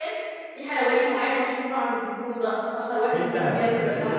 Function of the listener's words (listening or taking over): taking over